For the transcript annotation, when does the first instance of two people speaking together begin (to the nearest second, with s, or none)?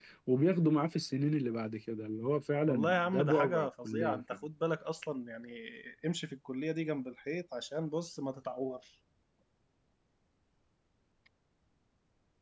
3 s